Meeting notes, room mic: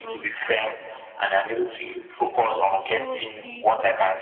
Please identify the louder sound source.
echo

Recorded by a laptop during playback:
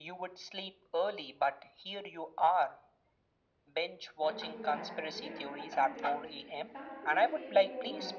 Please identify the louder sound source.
echo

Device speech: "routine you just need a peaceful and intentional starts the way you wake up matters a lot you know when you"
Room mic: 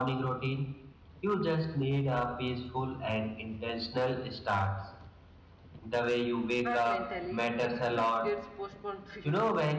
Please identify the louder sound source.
echo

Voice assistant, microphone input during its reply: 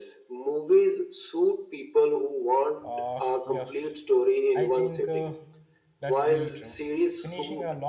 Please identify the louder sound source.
echo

